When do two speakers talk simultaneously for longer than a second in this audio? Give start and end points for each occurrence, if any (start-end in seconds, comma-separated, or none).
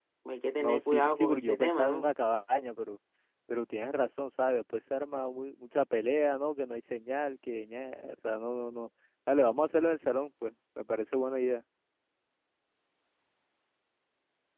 0.6-2.1